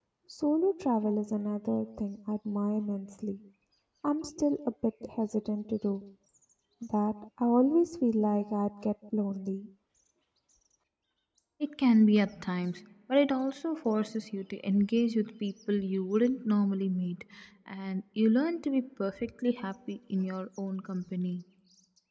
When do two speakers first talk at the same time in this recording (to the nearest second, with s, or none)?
none